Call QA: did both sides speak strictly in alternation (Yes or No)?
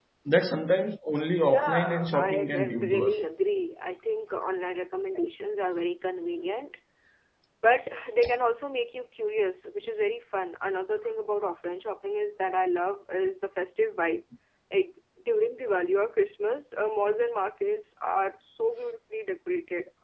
No